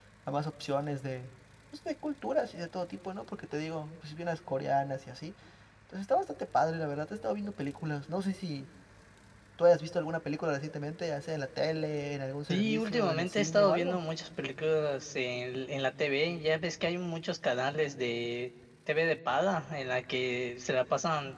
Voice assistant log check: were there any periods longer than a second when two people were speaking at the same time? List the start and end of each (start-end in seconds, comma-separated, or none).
12.5-14.0